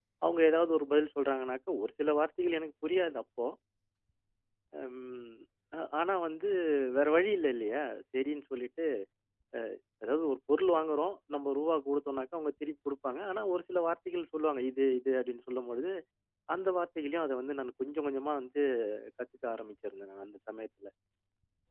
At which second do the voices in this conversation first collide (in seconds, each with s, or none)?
none